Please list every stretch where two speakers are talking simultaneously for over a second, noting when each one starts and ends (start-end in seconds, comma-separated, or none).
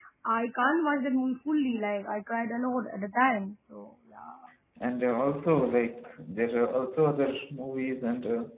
none